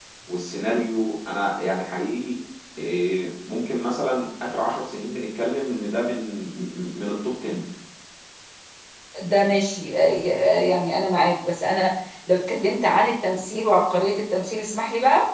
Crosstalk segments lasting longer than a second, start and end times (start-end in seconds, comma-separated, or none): none